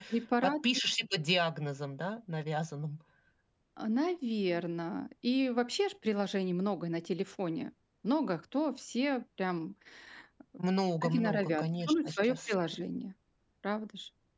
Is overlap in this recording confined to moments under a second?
No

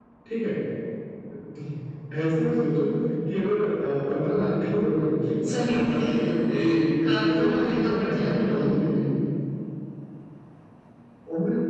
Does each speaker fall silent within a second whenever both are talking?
No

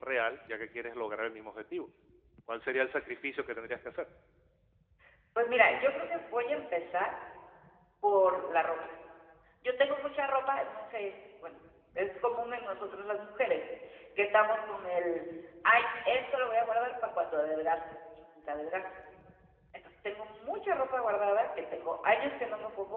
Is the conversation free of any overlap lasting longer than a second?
Yes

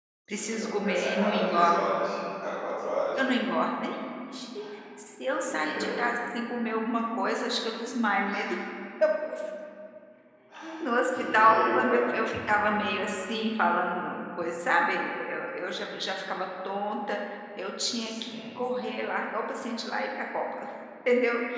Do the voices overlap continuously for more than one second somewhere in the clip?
Yes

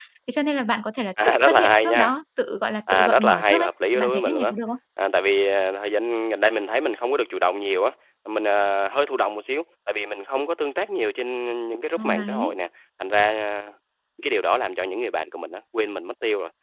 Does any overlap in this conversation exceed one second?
Yes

